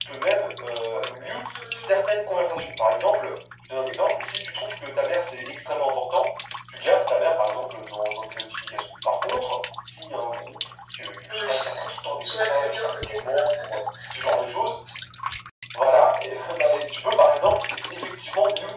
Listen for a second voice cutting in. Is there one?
Yes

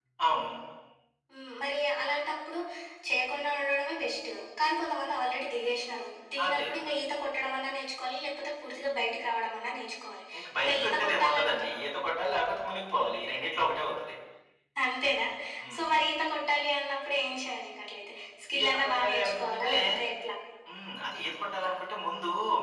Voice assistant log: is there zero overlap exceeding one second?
No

